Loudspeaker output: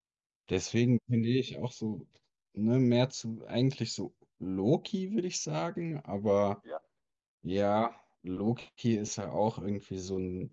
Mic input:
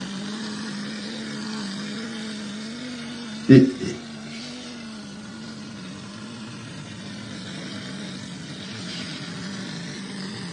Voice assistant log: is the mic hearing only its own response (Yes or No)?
No